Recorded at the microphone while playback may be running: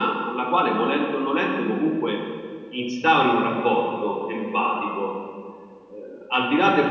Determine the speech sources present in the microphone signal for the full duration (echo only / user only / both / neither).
echo only